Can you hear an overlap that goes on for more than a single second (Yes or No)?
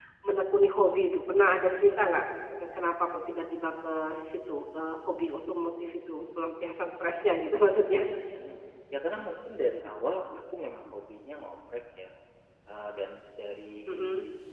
No